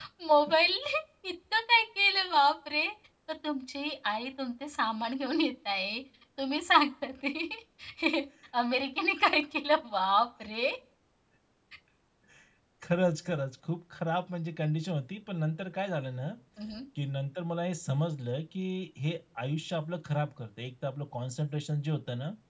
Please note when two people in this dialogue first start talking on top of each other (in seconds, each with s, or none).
none